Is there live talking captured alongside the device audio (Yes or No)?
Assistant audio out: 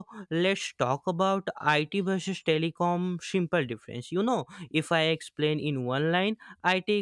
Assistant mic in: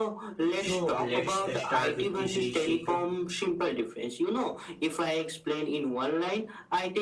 Yes